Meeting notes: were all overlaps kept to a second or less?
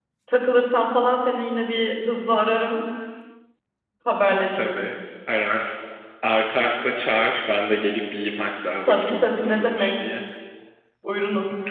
No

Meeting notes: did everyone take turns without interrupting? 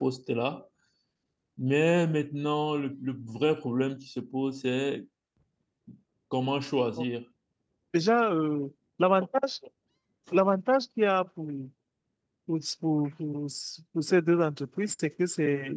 Yes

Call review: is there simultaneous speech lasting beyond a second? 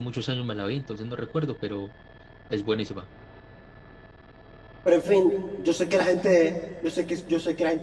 No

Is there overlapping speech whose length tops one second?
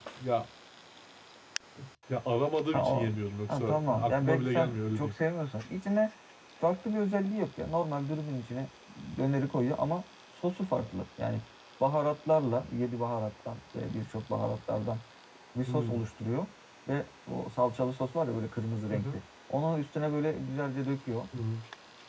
Yes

